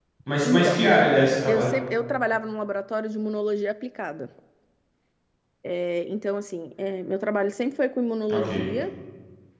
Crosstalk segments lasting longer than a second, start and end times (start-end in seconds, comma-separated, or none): none